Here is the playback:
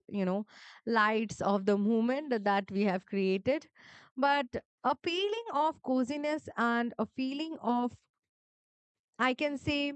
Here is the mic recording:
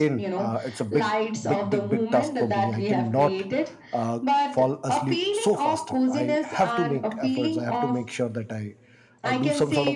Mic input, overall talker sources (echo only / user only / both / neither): both